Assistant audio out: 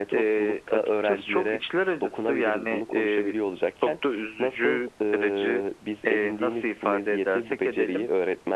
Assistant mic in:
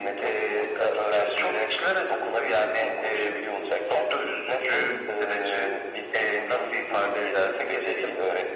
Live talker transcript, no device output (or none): none